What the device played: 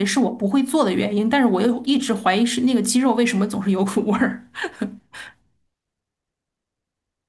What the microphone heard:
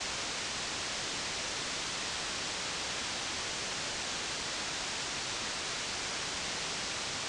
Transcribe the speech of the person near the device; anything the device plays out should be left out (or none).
none